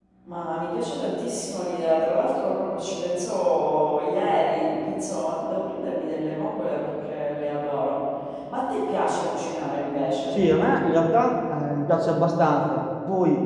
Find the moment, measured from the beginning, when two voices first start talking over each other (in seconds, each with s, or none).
none